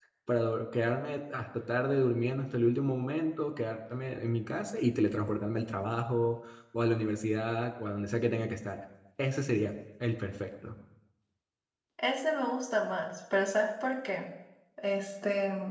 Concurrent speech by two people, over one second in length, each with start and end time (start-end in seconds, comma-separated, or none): none